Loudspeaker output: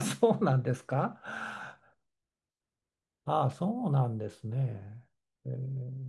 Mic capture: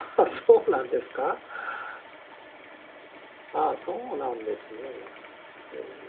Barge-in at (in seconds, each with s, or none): none